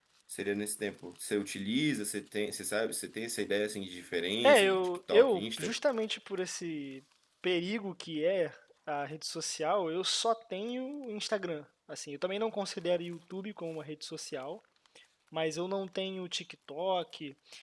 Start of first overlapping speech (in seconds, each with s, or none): 4.4 s